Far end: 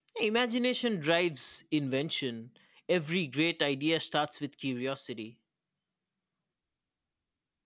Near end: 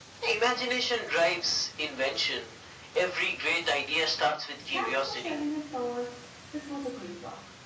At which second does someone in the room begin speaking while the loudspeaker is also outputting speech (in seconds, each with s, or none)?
4.7 s